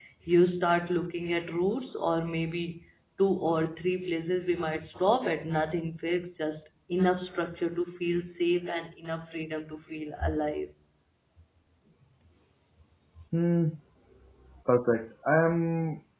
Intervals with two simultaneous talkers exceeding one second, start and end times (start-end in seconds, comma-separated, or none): none